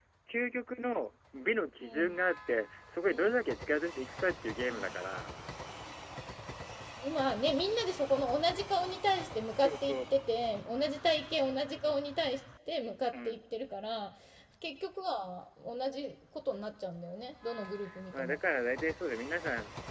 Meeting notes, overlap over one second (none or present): none